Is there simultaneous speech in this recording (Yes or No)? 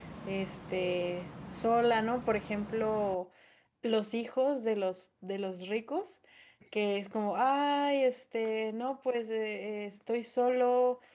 No